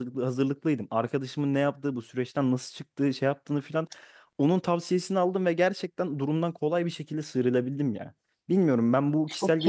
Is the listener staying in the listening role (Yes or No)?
Yes